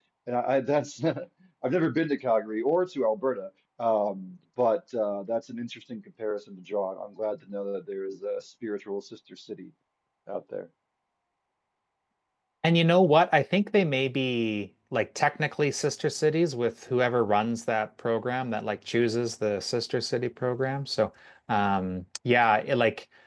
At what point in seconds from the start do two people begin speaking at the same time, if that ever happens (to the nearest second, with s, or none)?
none